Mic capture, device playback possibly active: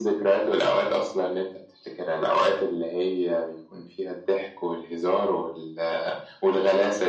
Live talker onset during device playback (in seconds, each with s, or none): none